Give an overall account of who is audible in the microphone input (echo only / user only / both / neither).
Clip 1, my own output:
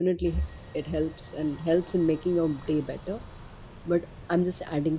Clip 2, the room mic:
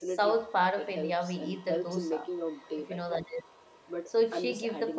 both